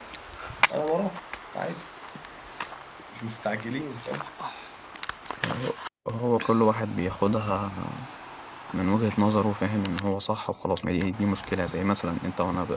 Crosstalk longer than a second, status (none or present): none